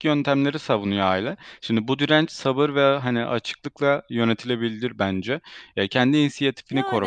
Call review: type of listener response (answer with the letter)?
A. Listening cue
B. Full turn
A